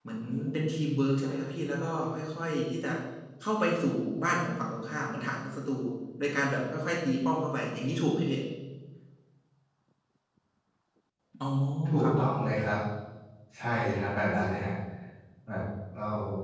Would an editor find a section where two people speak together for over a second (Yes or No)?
No